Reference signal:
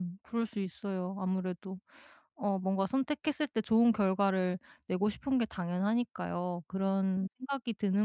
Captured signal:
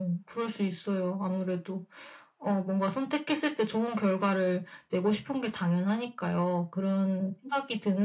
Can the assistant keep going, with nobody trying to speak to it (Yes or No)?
Yes